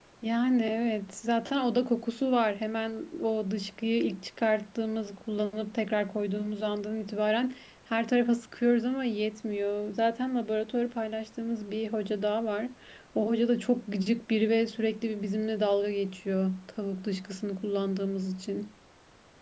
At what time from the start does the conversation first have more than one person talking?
none

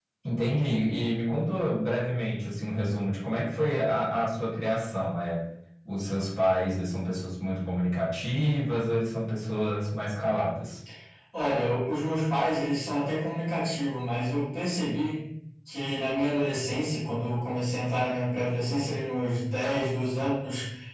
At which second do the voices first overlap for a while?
none

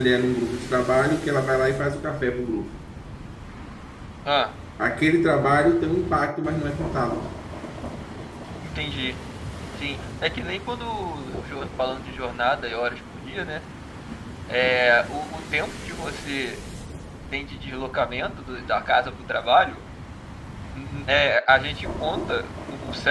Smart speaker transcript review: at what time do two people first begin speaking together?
none

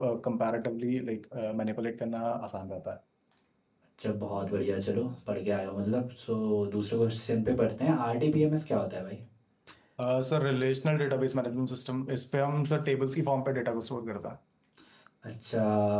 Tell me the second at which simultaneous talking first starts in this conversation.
none

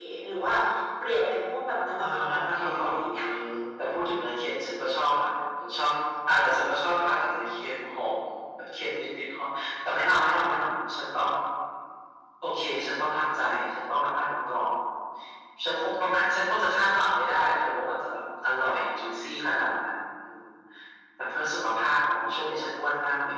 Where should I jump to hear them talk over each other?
2 s

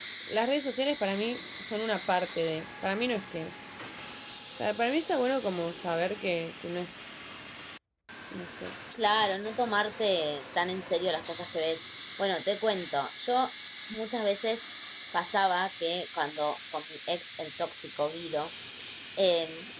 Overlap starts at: none

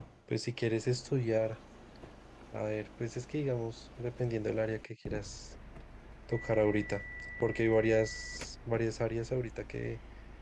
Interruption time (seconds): none

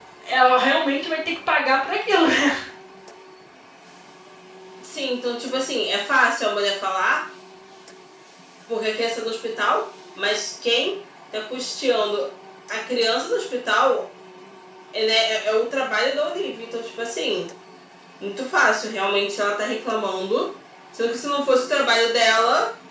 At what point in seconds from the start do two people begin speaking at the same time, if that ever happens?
none

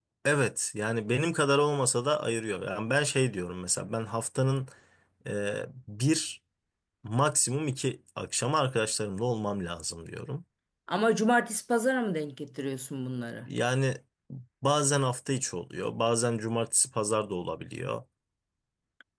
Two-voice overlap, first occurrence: none

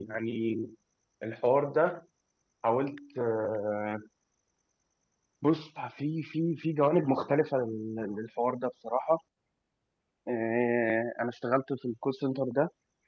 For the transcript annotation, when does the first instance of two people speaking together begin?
none

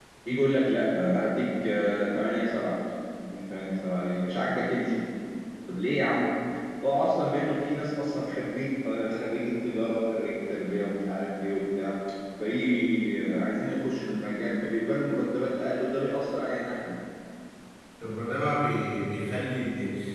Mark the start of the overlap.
none

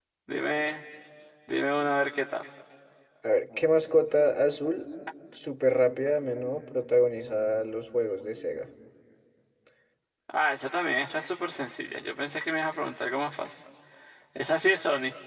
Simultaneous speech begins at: none

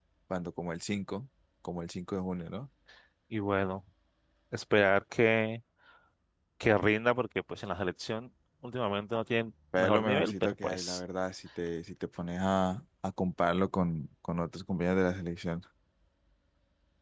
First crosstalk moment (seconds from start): 10 s

